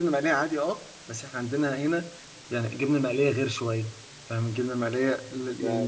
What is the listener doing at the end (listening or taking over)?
listening